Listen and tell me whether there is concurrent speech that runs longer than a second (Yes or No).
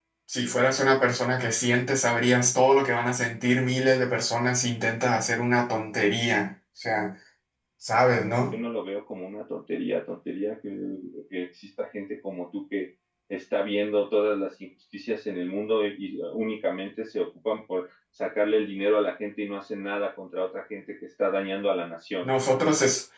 No